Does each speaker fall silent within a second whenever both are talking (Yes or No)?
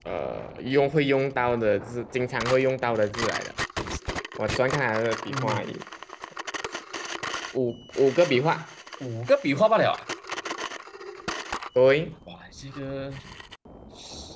Yes